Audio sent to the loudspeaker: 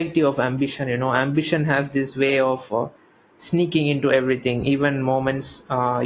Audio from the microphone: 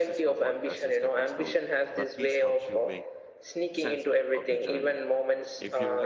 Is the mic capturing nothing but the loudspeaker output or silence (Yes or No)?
No